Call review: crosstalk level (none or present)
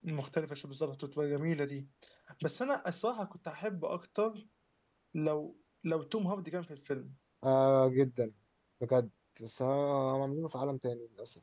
none